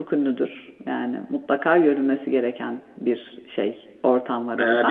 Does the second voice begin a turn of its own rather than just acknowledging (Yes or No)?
Yes